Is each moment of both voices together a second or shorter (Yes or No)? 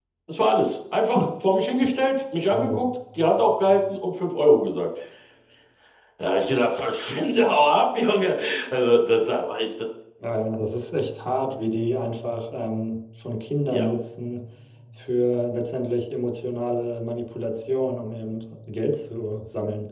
Yes